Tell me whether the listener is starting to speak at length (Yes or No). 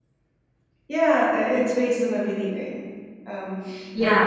Yes